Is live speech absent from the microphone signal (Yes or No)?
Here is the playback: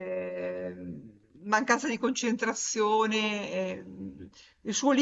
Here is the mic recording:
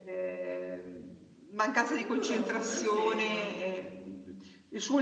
No